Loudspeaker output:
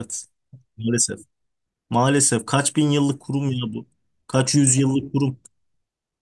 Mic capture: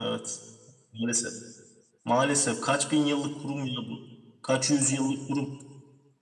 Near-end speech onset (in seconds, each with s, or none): none